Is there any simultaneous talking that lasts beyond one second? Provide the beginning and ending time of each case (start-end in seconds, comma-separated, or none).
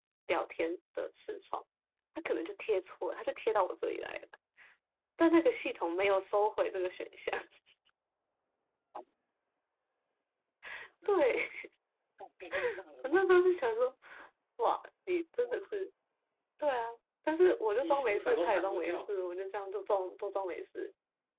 17.8-19.1